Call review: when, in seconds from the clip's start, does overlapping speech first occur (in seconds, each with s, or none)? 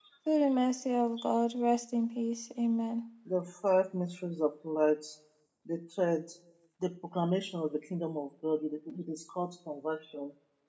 none